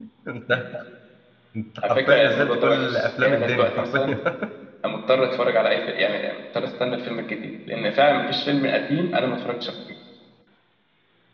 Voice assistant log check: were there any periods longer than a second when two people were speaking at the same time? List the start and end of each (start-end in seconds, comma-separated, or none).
1.9-4.0